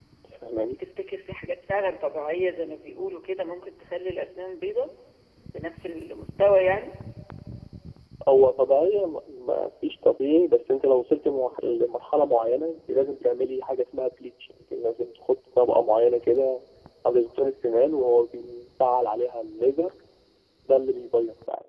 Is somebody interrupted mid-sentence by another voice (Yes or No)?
No